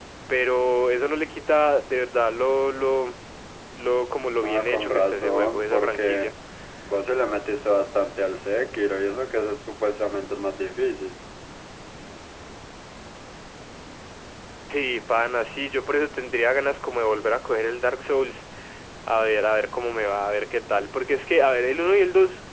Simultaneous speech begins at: 4 s

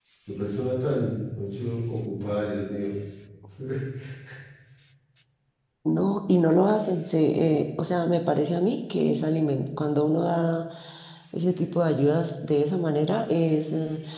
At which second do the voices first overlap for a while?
none

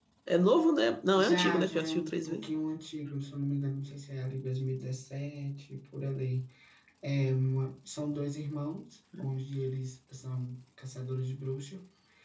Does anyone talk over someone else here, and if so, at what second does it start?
1 s

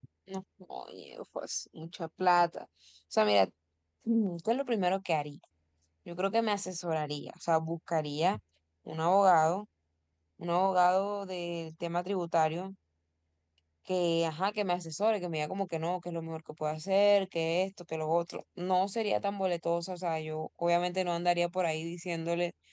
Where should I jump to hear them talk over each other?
none

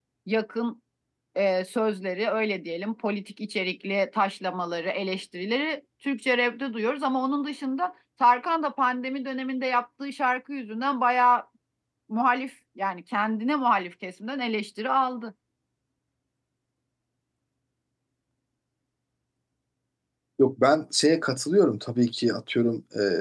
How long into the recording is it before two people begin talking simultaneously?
none

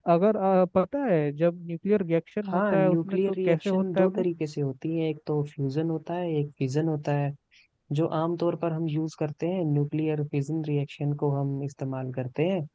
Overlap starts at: 3 s

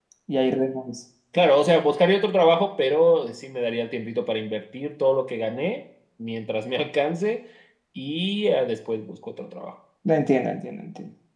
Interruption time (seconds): none

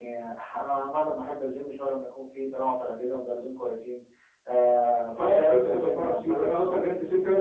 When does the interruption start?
5 s

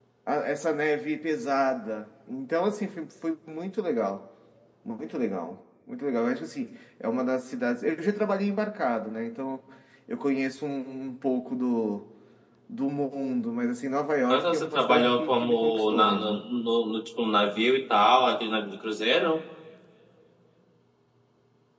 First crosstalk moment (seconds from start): 14 s

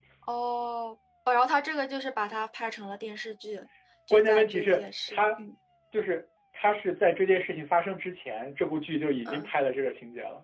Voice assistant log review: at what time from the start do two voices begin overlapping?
4 s

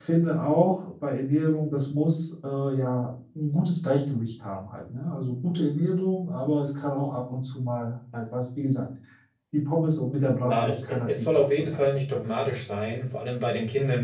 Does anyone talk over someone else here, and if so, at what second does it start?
10 s

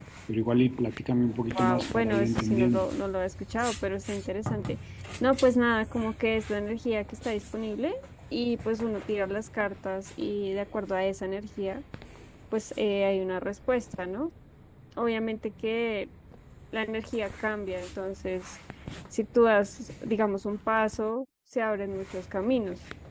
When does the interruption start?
2 s

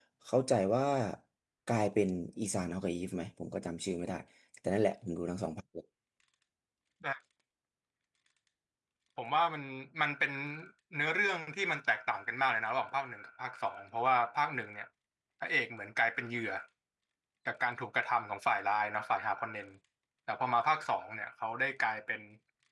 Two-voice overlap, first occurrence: none

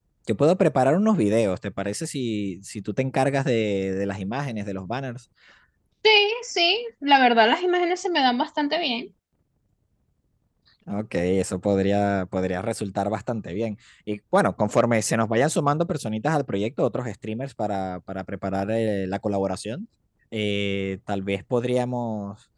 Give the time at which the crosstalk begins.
none

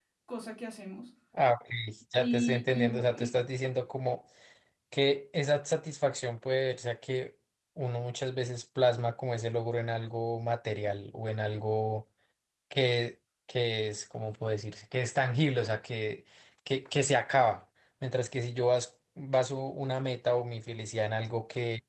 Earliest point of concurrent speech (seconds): 2 s

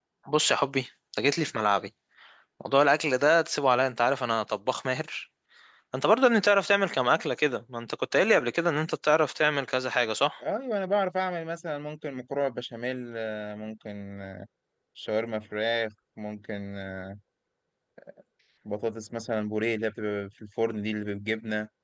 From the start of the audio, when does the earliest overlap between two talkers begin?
none

